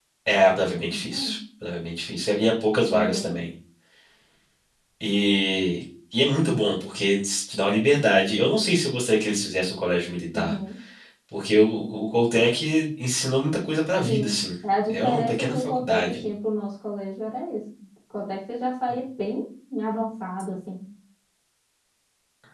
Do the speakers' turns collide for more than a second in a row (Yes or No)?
Yes